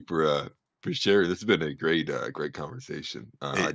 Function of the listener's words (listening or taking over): taking over